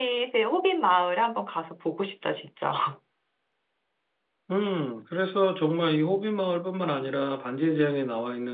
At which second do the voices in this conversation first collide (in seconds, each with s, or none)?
none